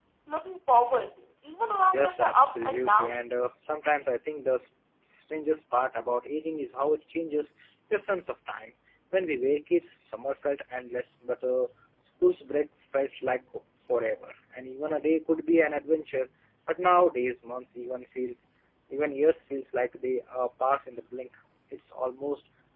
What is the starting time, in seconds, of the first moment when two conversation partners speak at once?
1.9 s

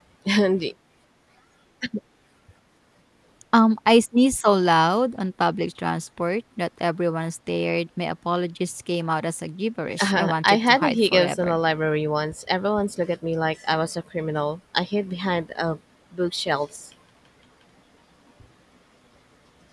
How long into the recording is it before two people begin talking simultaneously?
10.0 s

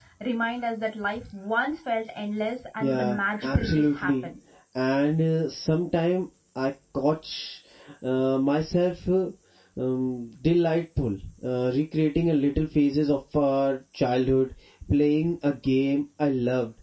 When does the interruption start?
2.8 s

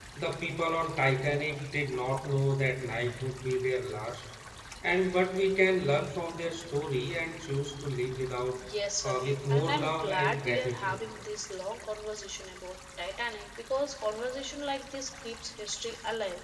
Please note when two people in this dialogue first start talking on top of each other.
9.0 s

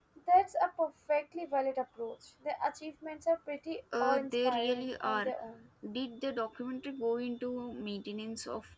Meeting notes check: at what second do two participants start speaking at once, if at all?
3.9 s

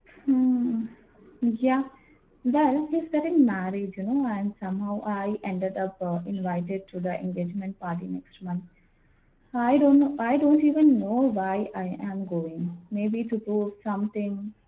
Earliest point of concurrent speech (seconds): none

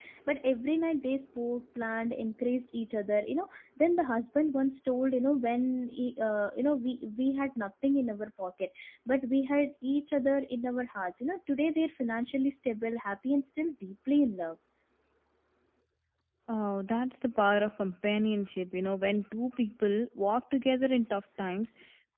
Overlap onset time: none

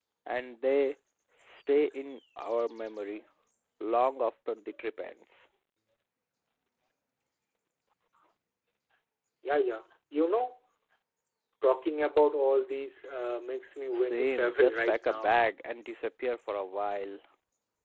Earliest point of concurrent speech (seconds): 13.9 s

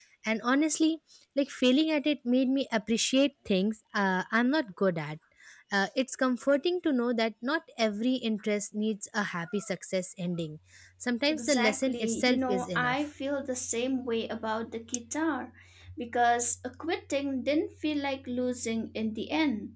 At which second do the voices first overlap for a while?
11.3 s

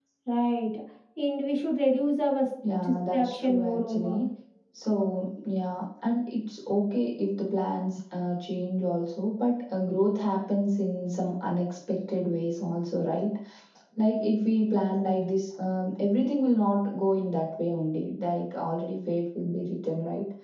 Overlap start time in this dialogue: 2.6 s

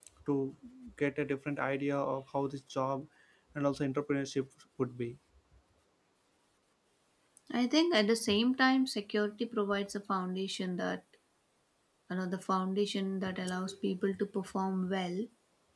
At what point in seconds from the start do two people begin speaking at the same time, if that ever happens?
none

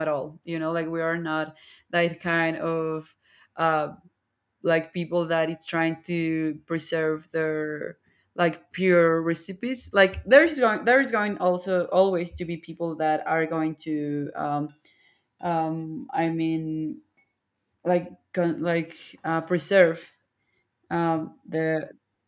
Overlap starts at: none

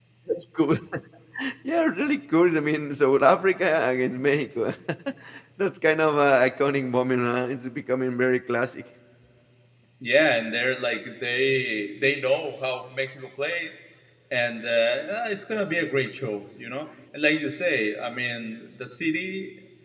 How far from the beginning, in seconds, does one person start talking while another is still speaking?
none

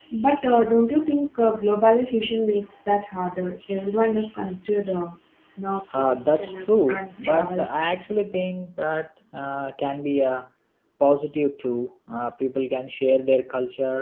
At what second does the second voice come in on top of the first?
5.9 s

